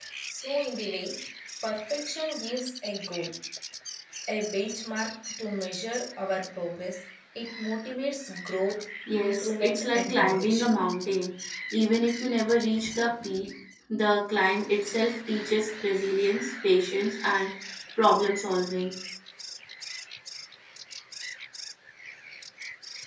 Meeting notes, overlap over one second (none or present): present